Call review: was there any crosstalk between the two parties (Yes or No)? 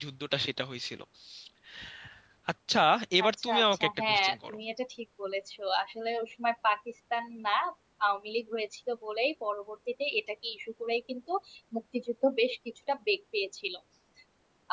Yes